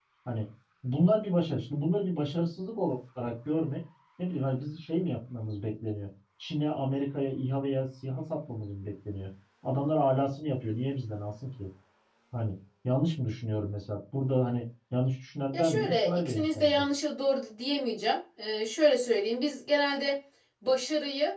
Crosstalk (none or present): present